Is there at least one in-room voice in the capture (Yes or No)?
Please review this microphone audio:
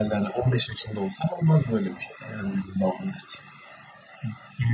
No